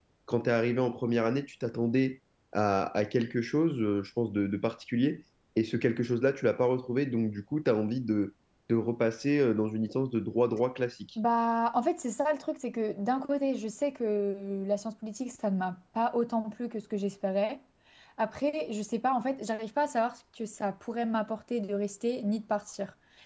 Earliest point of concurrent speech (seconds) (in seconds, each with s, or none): none